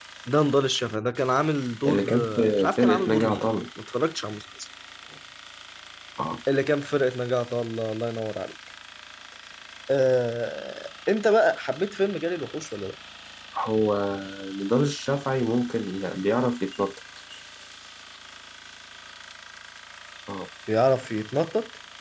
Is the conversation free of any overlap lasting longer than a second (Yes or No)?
No